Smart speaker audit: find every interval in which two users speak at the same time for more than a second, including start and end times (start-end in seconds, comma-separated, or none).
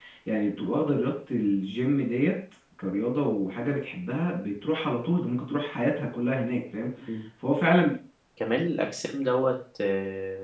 none